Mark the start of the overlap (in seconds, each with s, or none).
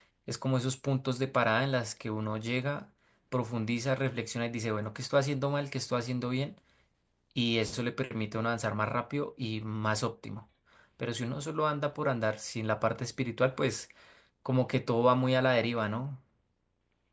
none